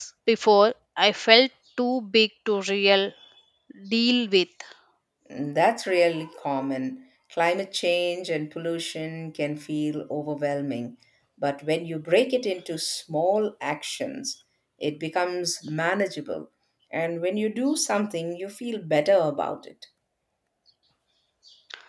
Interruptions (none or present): none